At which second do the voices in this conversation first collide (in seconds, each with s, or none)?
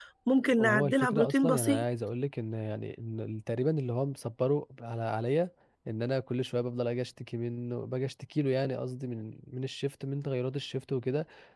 0.6 s